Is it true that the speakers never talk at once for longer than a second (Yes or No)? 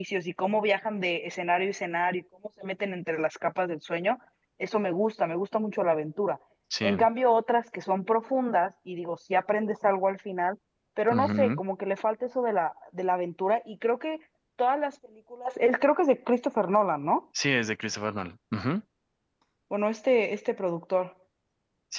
Yes